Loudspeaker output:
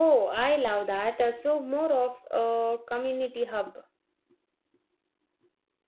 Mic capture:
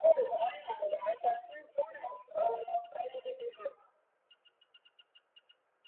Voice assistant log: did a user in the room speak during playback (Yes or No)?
No